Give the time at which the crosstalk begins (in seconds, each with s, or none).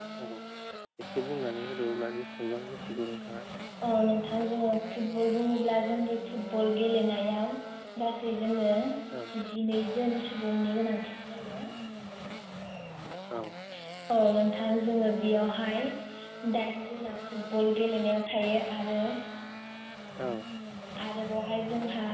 none